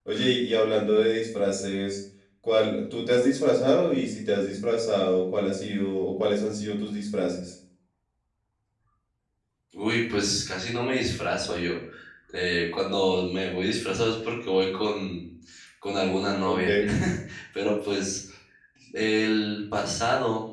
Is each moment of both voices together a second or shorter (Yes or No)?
Yes